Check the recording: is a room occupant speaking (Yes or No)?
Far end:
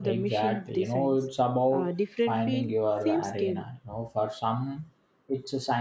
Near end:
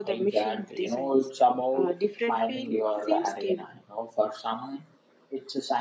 No